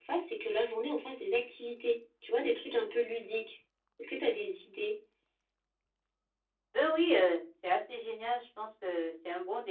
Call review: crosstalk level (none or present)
none